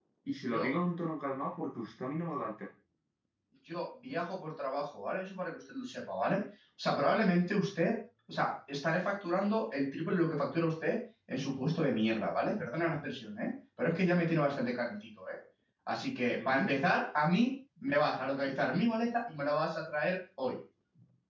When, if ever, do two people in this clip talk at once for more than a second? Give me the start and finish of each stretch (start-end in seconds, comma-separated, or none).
none